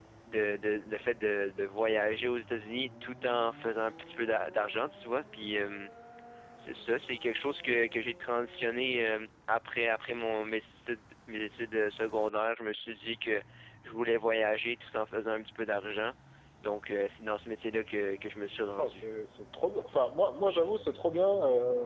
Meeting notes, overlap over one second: none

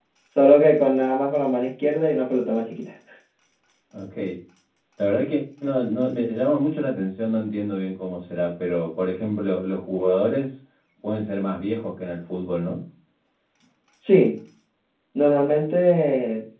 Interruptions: none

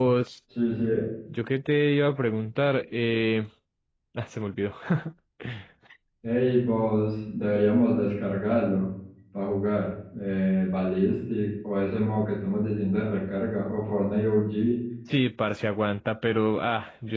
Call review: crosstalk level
none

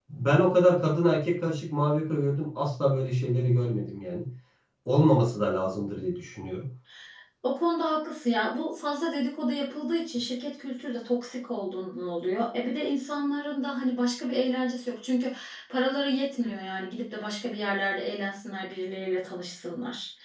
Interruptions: none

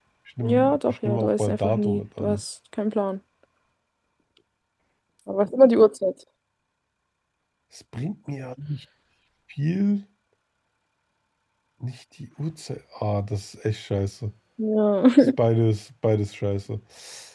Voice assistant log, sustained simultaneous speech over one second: present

